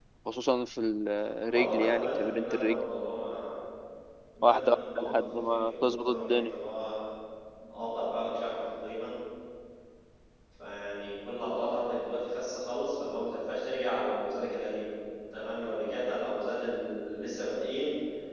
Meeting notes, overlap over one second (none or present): present